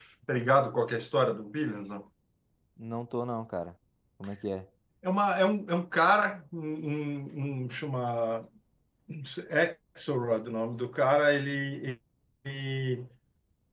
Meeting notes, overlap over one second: none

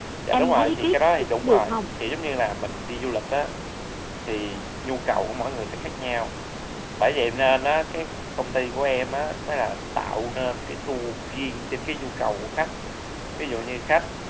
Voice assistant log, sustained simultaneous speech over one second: present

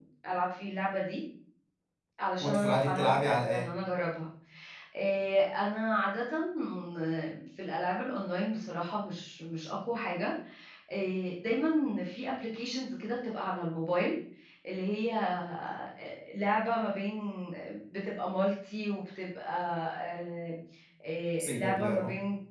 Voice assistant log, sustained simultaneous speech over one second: present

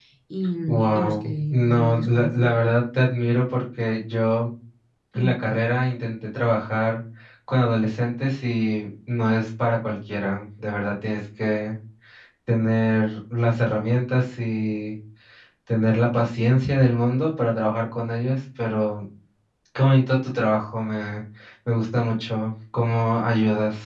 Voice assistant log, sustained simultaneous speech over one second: present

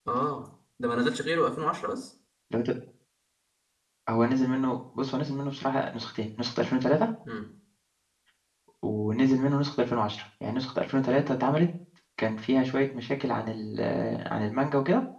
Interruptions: none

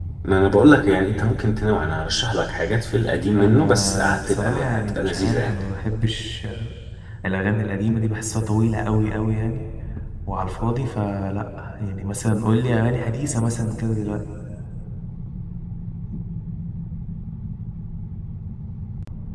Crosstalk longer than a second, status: present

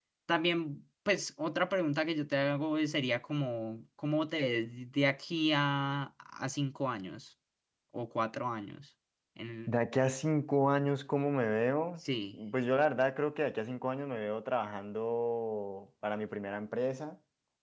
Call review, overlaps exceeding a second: none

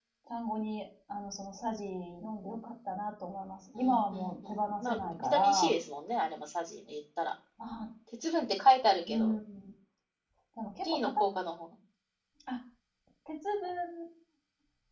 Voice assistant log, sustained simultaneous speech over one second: present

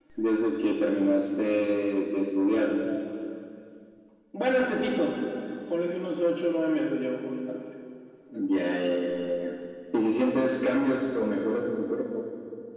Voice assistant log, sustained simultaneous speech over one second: none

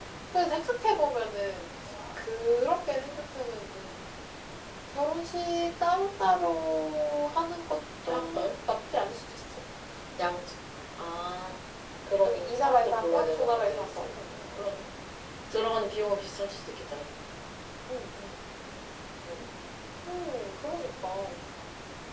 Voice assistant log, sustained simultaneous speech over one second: present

